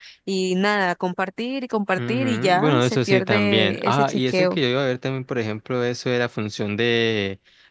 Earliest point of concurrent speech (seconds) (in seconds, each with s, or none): 2.0 s